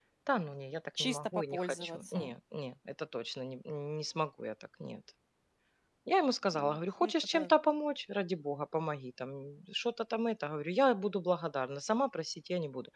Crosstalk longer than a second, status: present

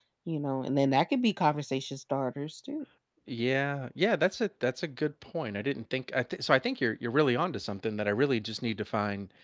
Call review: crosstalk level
none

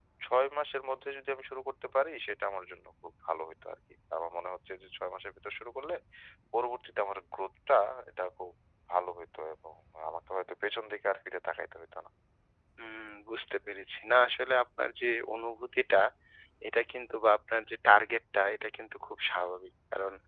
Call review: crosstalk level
none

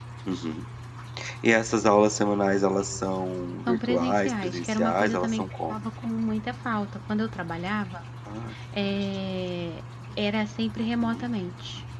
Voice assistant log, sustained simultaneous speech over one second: present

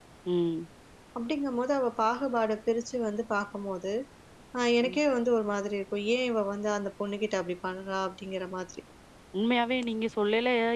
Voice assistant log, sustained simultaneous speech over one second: none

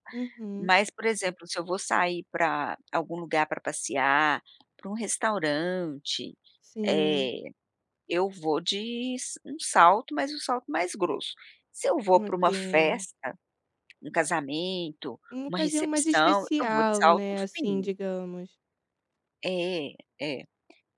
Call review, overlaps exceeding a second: present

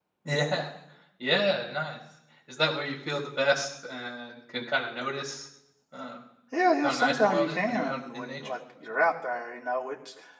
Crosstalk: present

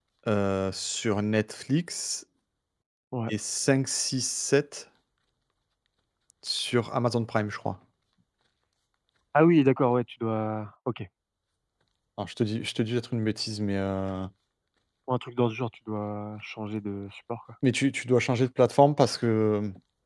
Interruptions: none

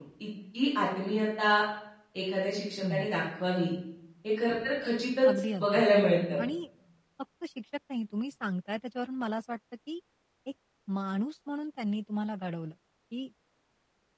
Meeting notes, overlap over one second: none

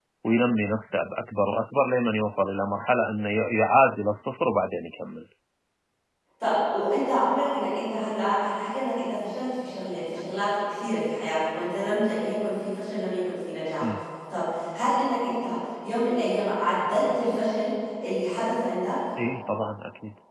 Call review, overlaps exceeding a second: none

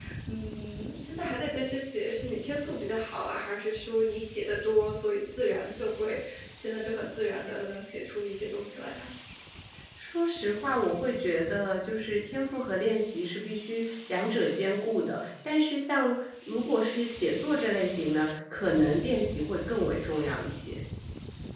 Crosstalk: none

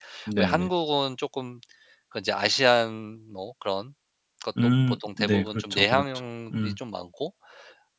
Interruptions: present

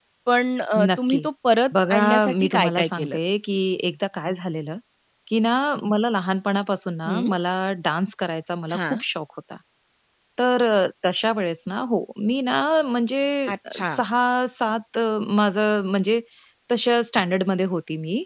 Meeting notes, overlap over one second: present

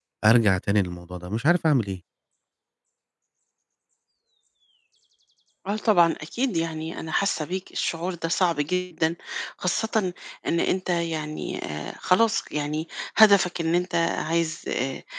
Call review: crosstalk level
none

